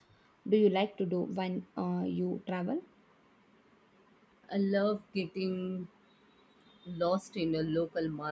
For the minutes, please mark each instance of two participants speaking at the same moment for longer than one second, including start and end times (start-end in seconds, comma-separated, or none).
none